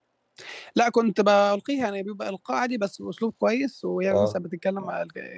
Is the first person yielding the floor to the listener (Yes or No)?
No